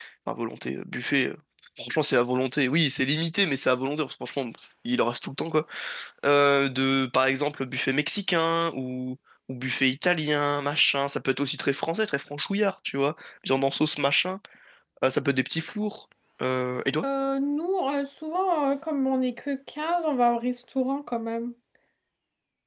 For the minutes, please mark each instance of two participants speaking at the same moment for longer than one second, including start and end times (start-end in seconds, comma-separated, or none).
none